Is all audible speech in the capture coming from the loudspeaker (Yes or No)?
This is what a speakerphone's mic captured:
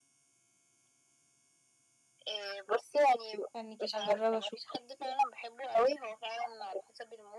No